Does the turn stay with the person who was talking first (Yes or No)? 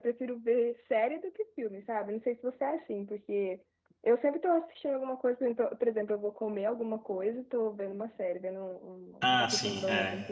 No